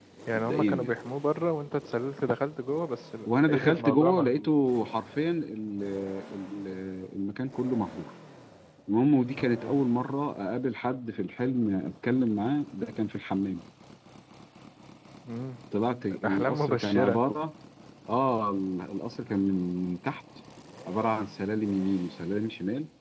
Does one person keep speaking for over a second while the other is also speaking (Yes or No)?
Yes